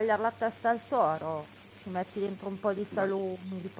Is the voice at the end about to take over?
No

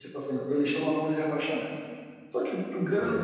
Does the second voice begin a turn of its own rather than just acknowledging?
No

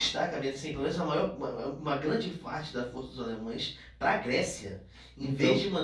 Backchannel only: Yes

